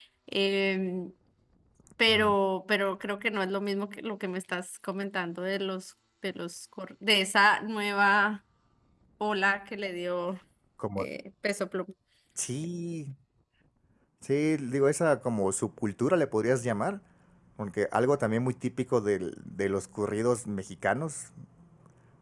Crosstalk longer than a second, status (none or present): none